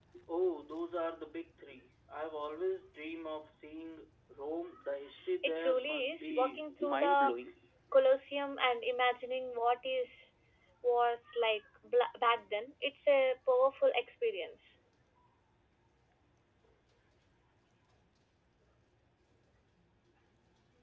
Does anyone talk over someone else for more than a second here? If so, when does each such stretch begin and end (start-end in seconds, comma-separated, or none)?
5.4-7.3